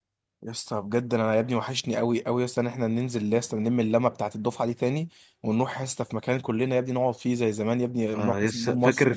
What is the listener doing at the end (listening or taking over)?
taking over